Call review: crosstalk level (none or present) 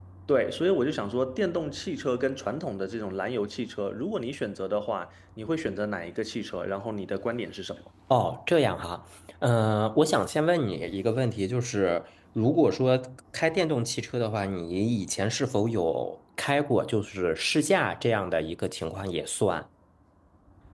none